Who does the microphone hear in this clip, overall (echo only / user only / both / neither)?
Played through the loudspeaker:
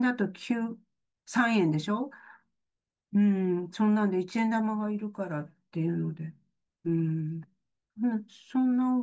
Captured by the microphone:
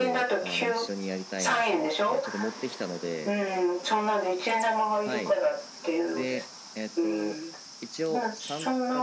both